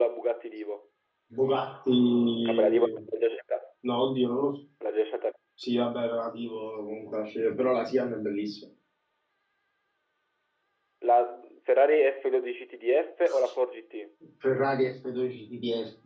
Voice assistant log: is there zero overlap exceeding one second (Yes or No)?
Yes